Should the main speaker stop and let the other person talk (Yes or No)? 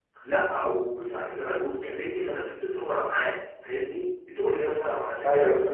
No